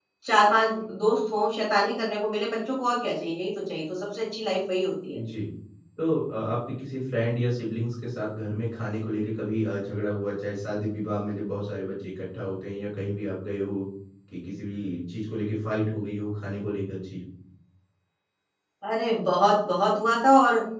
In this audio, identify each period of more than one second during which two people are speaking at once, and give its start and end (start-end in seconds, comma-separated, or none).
none